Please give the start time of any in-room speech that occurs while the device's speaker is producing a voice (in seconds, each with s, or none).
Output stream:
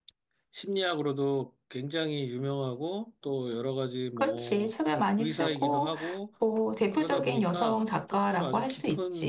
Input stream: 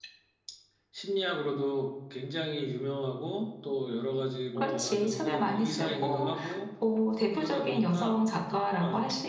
4.5 s